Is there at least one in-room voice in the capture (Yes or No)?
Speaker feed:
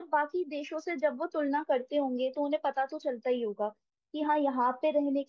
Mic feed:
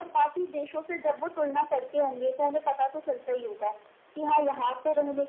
No